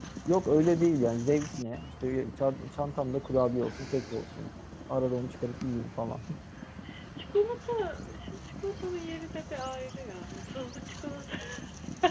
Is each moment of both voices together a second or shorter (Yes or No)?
Yes